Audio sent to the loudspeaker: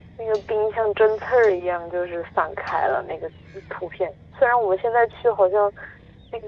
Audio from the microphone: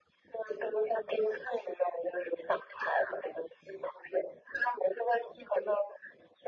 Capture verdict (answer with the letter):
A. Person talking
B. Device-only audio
B